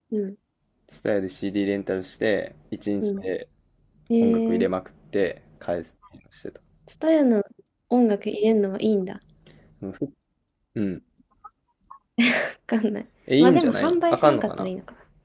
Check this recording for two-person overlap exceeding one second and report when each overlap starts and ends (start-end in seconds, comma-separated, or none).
13.4-14.7